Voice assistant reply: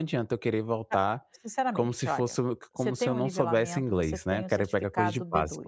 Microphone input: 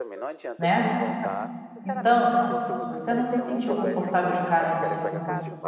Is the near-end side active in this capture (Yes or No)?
Yes